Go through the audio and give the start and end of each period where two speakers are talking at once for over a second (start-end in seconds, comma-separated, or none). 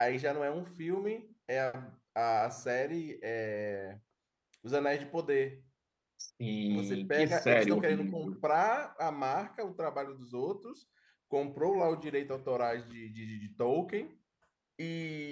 6.7-8.3